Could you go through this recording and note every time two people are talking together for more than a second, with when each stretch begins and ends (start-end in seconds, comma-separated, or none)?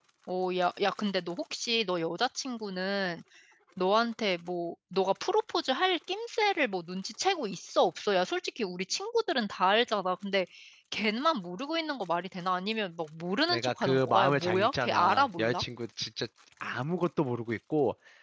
13.5-15.6